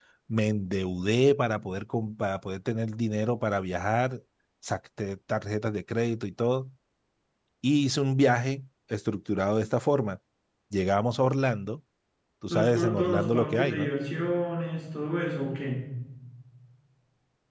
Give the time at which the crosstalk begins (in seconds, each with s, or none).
12.5 s